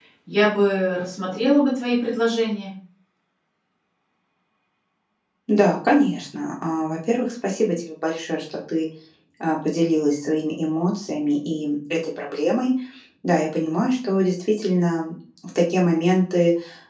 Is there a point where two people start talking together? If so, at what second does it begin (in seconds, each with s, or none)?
none